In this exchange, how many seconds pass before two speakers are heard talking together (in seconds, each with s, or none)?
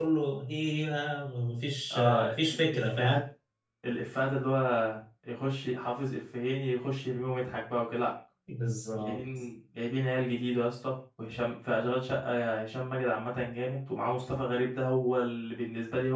1.9 s